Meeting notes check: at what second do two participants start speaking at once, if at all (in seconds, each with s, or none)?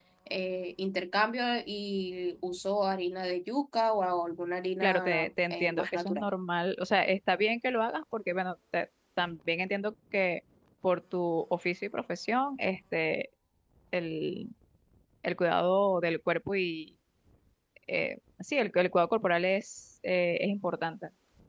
4.8 s